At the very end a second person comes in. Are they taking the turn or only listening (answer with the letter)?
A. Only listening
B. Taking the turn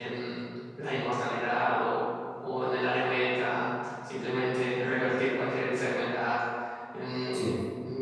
A